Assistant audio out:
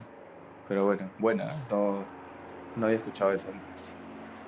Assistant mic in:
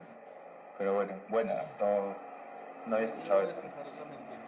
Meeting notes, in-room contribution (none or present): present